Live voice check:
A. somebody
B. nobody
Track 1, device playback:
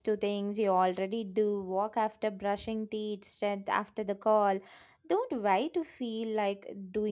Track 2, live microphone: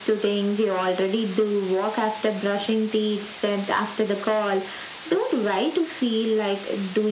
B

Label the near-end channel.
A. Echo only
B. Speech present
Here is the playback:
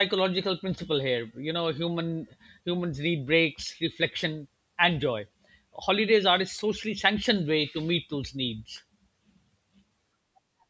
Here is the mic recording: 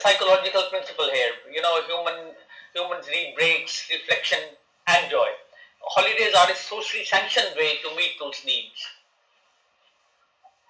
A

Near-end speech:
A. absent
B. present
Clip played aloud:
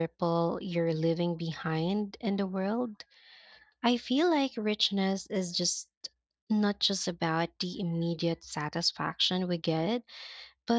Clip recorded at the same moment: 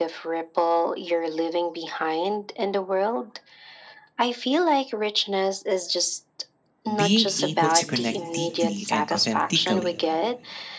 B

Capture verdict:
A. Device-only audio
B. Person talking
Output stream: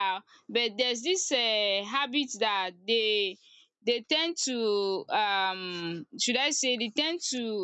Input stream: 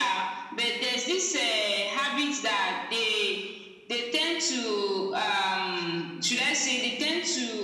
A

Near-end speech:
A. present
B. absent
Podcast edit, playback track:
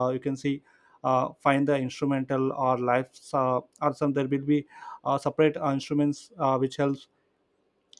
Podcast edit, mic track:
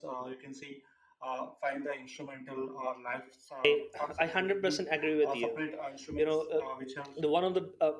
A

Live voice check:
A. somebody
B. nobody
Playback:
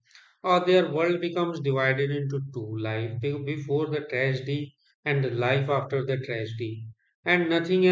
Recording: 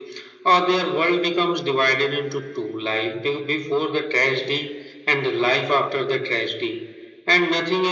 B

